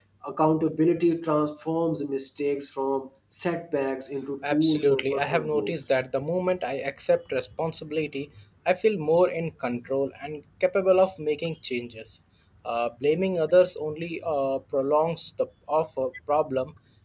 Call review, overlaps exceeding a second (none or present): present